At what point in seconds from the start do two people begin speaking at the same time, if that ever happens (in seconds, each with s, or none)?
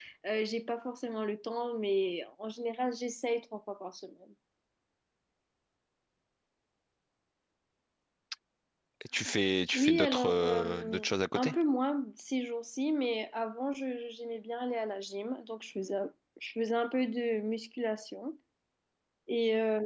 9.7 s